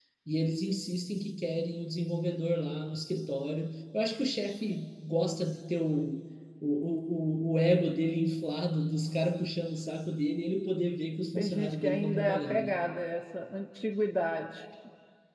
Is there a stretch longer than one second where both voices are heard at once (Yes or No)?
Yes